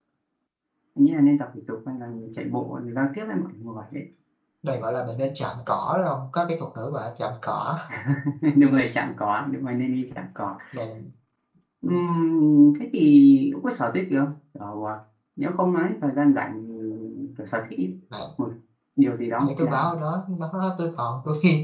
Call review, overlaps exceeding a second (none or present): none